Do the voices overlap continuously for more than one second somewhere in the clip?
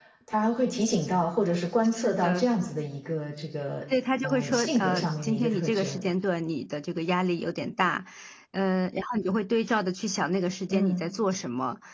Yes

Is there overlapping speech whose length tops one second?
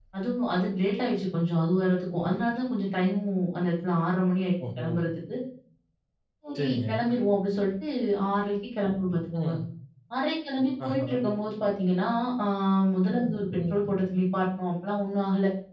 No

